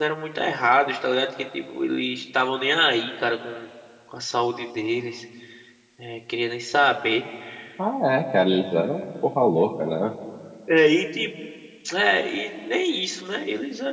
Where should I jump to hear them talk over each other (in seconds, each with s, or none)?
none